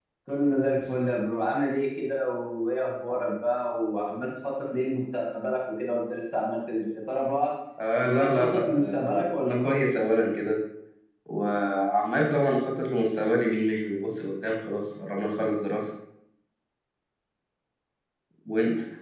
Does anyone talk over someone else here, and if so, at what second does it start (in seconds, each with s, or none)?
8.0 s